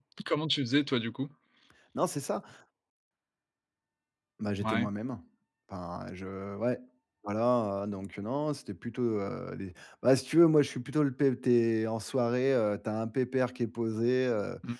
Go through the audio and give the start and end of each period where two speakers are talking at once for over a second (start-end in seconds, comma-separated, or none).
none